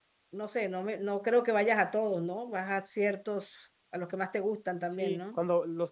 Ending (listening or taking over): taking over